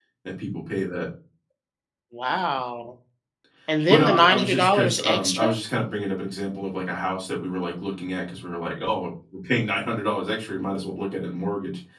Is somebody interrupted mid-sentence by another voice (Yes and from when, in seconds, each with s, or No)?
Yes, from 3.9 s